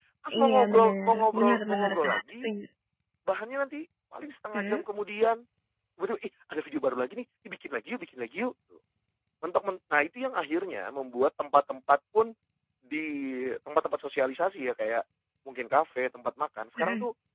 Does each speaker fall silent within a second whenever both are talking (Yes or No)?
No